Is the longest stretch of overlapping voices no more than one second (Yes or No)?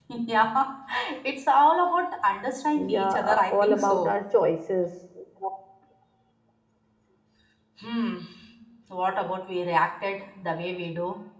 No